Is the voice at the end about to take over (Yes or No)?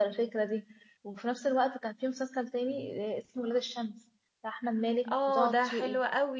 Yes